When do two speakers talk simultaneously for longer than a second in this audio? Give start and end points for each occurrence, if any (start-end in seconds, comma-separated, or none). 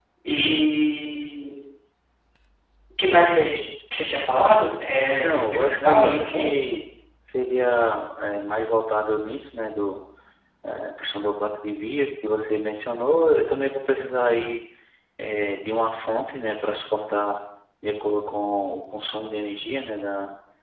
5.2-6.5